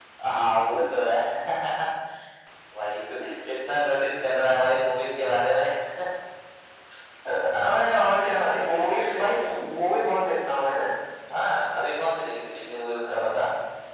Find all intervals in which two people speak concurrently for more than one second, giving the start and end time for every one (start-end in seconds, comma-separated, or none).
none